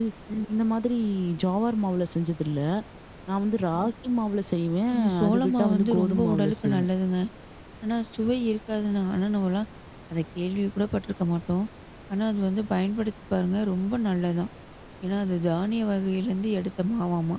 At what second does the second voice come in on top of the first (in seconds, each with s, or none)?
4.9 s